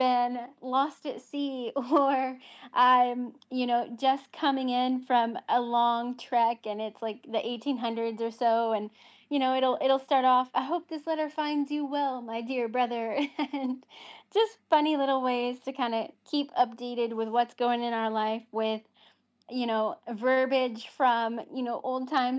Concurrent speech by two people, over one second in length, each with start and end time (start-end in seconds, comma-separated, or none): none